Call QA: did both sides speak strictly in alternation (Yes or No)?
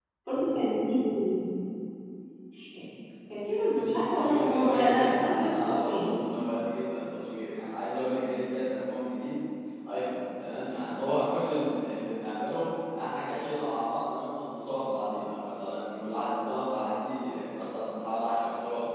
No